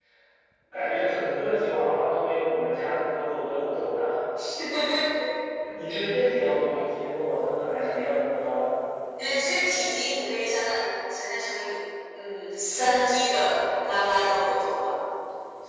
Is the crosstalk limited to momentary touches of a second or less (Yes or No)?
Yes